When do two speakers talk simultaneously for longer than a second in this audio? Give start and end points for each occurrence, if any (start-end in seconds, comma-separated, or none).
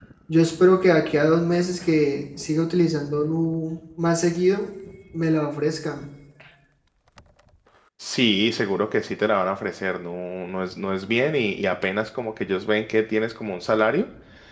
none